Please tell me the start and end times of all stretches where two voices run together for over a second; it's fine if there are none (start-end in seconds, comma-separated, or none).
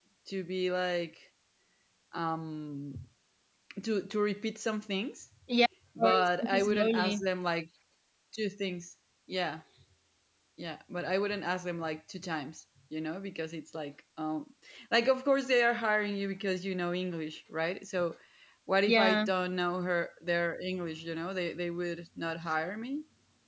6.0-7.2